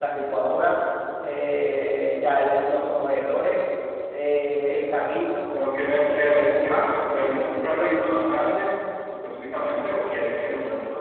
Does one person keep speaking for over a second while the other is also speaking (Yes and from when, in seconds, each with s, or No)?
Yes, from 6.1 s